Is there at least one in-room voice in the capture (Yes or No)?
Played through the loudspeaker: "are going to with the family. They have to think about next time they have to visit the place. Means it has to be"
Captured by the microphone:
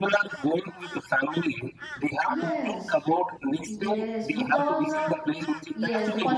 Yes